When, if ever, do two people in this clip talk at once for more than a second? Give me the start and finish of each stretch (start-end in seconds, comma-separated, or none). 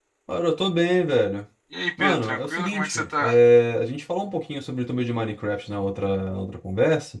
2.0-3.4